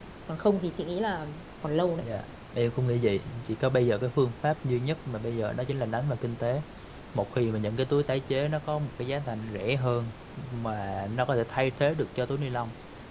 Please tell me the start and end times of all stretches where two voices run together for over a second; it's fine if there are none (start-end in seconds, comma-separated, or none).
none